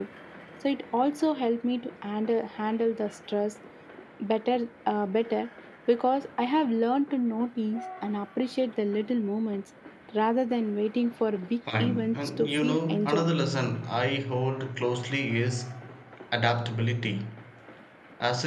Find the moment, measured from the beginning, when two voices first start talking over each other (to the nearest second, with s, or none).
12 s